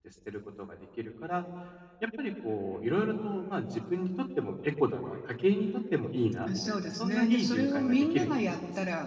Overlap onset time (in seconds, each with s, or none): 6.5 s